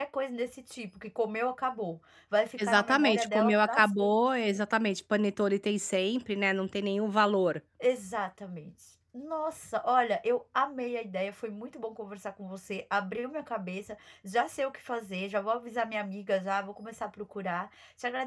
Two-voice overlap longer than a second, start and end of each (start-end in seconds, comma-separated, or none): 2.6-4.1